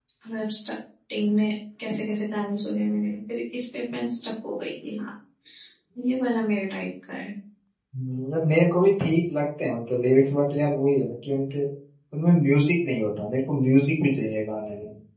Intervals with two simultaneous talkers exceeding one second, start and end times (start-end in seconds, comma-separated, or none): none